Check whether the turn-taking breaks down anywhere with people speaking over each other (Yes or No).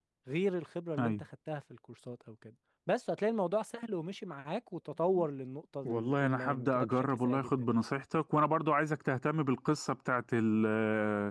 Yes